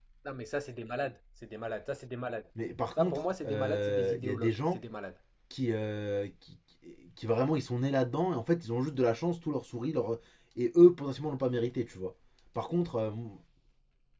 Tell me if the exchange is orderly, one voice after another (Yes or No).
No